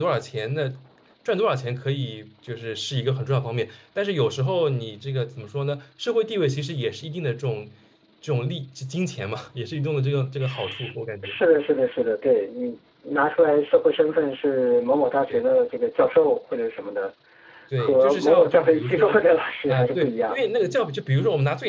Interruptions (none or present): present